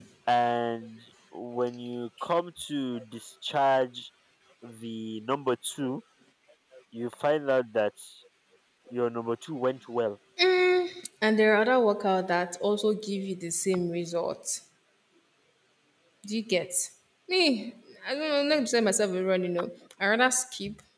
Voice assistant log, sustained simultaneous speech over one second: none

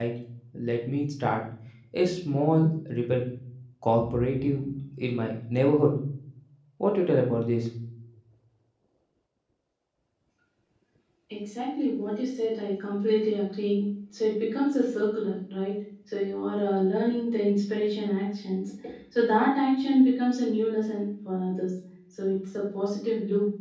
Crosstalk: none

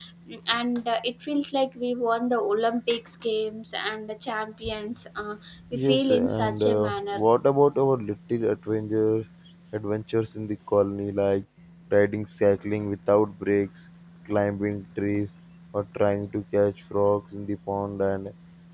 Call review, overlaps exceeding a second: present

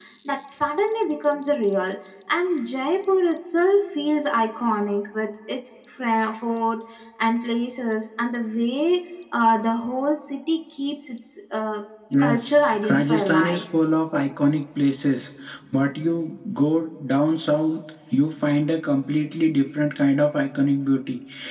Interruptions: present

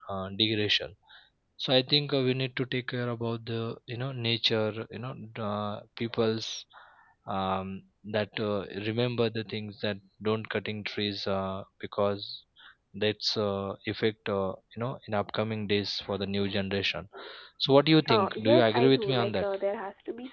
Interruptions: present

